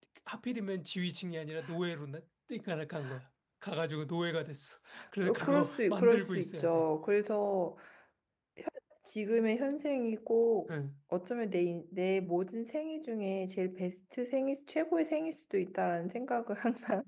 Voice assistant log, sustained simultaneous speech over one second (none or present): present